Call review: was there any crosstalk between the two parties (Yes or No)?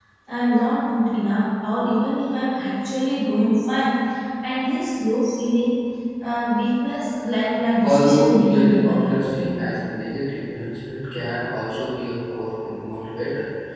Yes